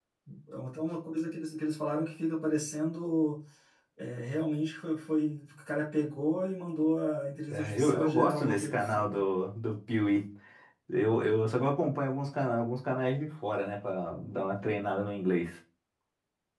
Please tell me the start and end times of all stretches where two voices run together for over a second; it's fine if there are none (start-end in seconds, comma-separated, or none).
7.5-9.2